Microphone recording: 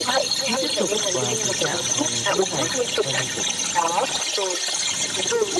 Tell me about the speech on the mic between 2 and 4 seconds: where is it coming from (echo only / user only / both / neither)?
both